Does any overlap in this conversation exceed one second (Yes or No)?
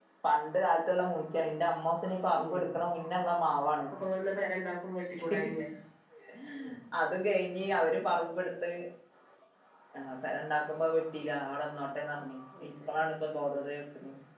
No